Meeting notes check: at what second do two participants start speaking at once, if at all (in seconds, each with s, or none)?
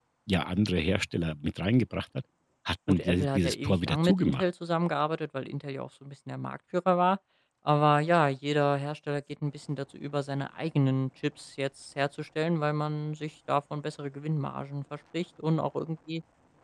2.9 s